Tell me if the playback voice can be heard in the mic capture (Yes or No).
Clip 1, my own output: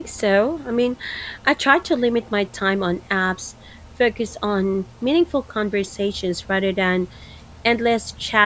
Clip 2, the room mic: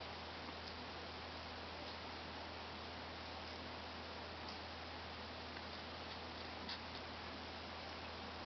No